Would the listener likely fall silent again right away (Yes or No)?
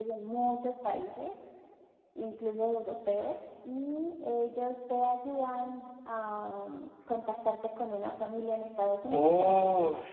No